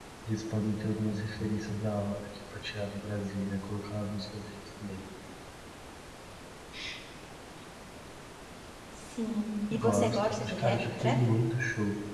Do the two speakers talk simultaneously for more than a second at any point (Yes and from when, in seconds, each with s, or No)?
Yes, from 9.7 s